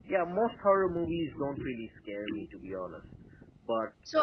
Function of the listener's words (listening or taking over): taking over